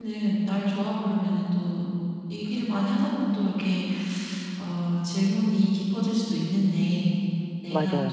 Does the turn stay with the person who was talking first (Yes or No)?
Yes